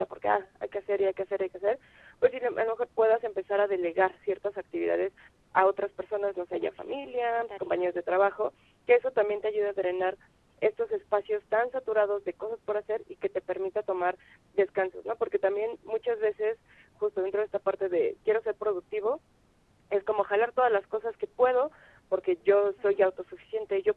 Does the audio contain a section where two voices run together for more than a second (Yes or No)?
Yes